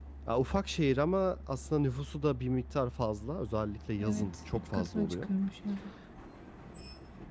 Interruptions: present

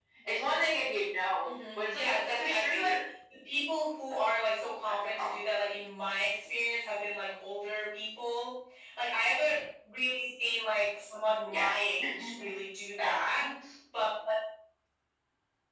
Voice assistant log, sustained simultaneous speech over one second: present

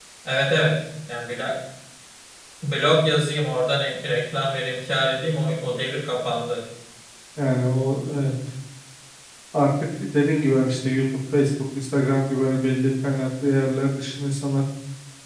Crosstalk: none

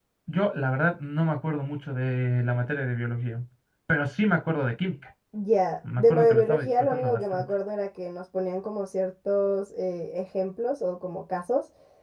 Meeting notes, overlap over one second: present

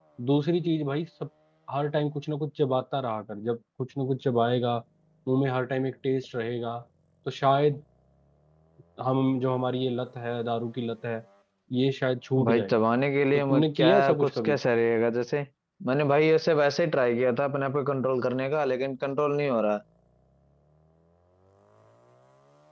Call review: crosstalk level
present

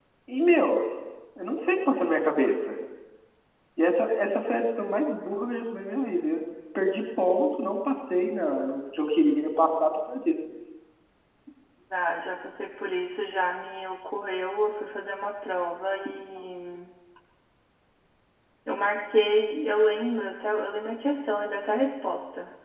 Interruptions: none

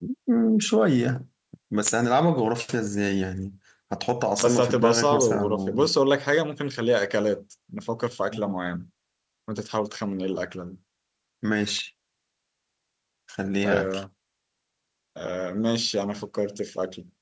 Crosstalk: present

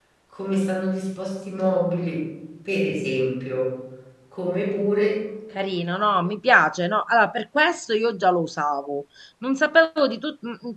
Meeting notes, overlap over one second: none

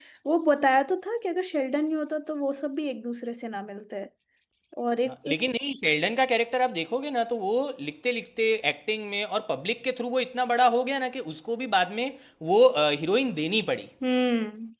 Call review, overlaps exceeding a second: none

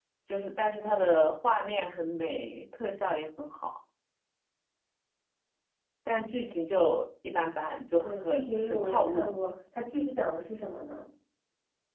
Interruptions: present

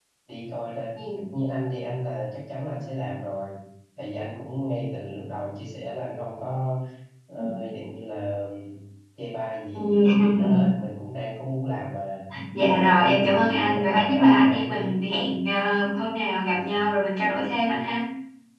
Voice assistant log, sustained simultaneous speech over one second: present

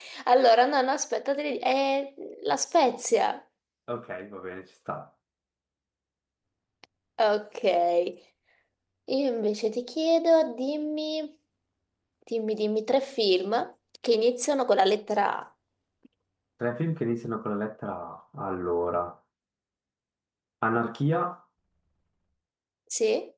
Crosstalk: none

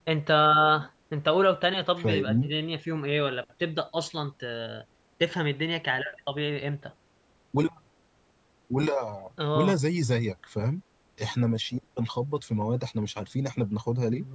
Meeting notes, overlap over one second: none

